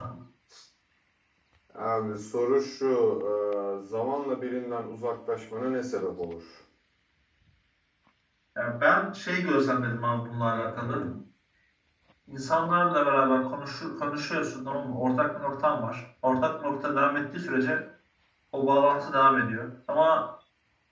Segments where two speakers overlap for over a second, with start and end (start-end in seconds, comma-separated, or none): none